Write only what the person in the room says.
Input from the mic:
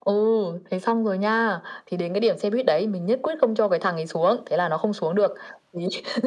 none

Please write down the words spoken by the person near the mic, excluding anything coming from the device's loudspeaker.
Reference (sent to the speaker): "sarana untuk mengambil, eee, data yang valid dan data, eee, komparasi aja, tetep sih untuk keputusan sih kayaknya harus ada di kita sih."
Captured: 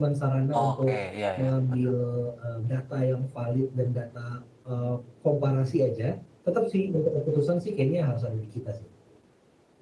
Oke, iya iya, betul.

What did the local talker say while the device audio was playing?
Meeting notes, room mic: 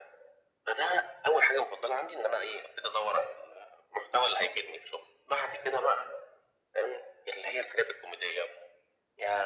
none

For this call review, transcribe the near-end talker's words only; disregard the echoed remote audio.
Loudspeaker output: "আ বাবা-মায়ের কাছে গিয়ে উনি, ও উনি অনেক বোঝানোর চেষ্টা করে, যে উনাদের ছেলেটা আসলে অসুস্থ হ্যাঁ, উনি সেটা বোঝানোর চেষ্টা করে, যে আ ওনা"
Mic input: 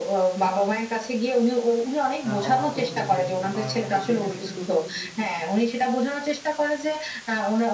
আ অক্ষর চিনতে কিন্তু পারে না। তো সেখানে কিন্তু

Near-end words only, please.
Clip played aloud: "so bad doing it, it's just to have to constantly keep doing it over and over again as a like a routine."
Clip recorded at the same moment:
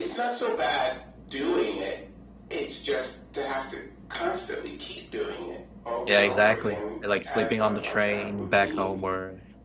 Yeah, exactly, it like sleeping on the train back home or

